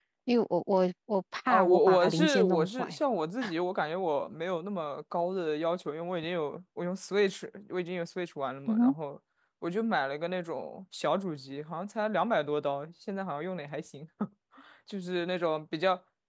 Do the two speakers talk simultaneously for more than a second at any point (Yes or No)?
Yes